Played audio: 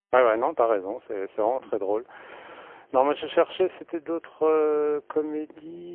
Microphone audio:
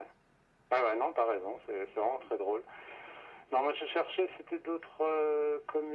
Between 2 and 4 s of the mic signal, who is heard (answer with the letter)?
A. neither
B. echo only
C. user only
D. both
B